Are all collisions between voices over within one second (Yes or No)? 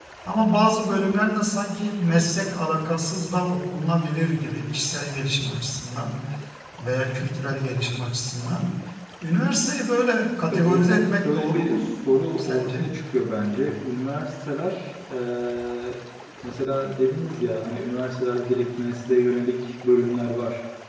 No